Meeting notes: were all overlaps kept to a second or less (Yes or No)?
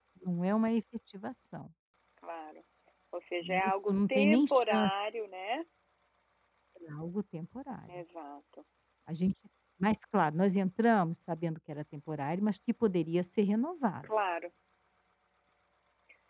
No